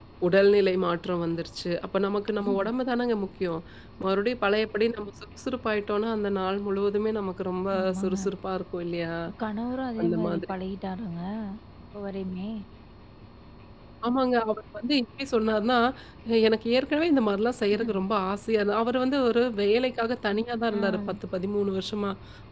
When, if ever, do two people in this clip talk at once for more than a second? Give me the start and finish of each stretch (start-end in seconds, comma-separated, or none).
none